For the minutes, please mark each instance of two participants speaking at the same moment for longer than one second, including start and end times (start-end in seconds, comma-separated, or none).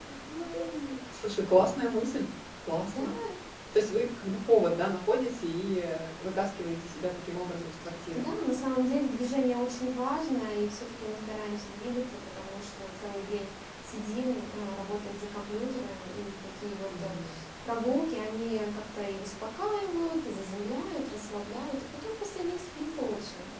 none